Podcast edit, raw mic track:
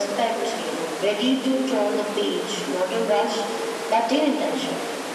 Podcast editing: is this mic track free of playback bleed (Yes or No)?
No